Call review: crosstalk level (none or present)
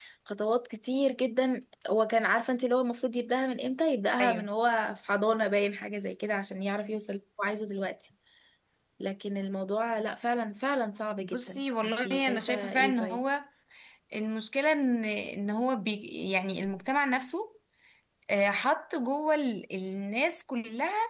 present